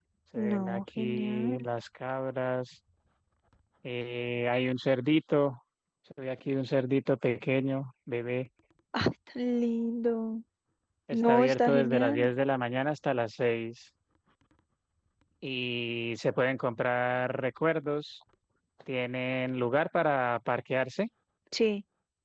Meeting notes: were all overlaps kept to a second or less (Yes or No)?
No